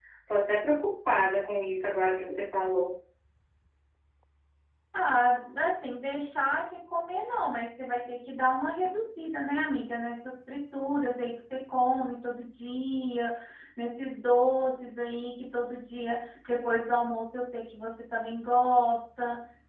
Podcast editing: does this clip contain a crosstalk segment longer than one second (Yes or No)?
No